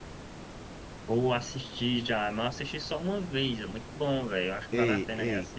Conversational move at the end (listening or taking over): taking over